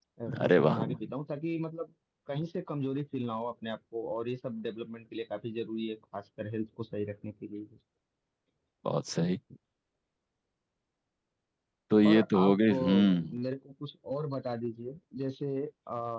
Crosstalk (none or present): present